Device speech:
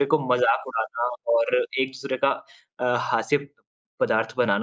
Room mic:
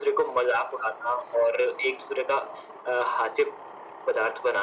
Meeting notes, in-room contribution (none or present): none